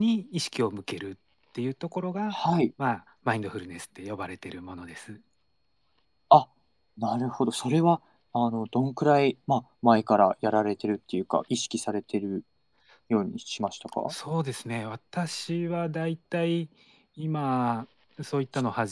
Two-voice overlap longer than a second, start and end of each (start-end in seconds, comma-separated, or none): none